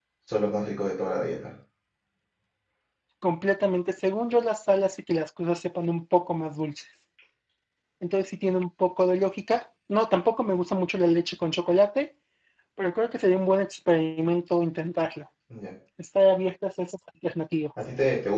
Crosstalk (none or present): none